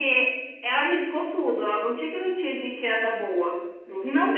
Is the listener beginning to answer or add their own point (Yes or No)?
Yes